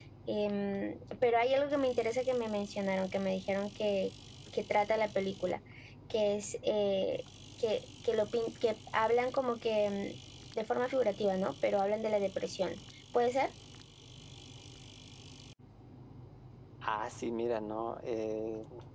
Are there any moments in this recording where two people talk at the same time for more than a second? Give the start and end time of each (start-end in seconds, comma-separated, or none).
none